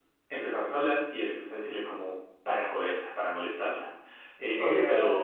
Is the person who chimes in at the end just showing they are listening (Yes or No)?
No